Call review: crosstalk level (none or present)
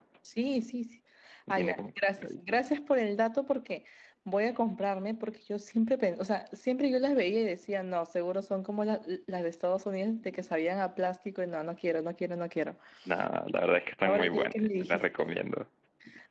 present